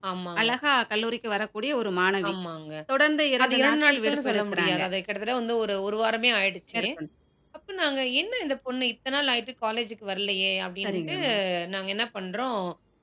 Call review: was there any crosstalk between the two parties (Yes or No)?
Yes